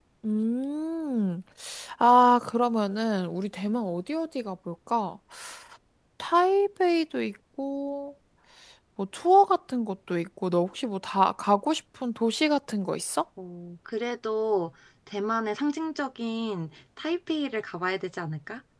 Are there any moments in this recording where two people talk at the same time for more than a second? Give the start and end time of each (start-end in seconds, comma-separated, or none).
none